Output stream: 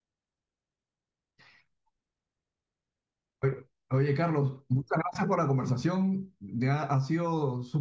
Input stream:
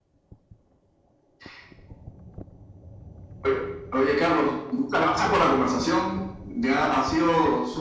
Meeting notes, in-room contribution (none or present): none